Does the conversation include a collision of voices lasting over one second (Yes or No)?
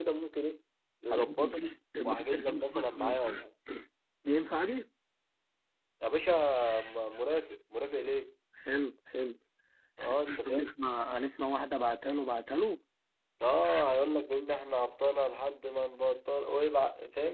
Yes